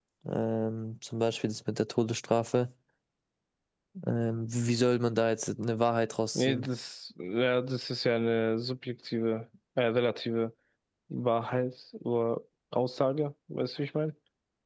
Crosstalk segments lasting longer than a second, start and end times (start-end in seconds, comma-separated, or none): none